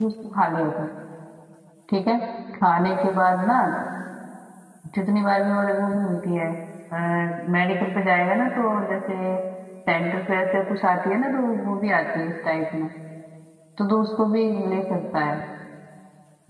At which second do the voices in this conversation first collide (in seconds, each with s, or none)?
none